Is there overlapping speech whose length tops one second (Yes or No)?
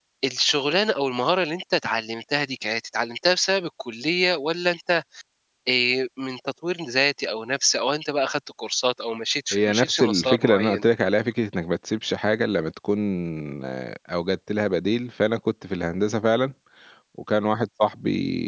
Yes